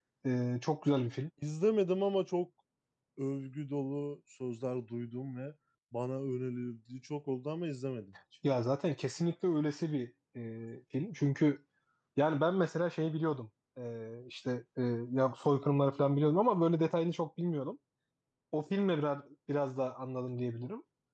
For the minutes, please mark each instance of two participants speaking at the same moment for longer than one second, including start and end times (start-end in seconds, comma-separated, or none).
none